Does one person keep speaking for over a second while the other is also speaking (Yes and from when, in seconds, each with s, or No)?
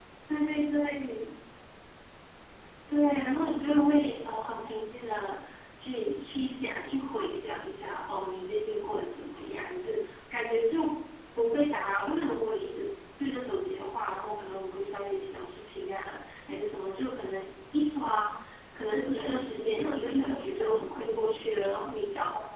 Yes, from 18.9 s